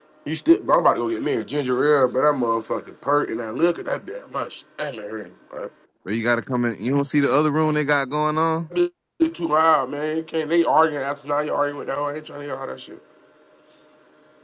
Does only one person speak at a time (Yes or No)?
Yes